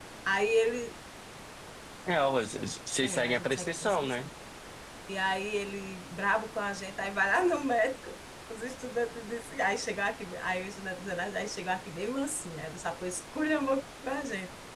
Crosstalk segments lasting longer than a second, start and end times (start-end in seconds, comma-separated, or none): 3.0-4.3